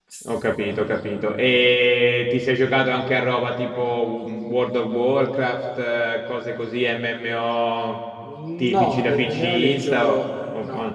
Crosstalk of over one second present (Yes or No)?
Yes